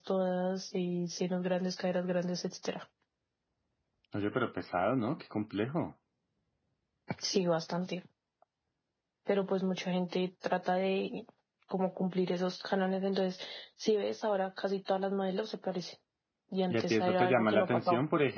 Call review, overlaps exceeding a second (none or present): present